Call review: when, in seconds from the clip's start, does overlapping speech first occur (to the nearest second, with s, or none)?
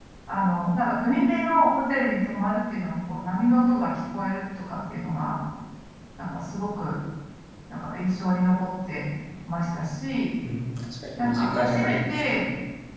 11 s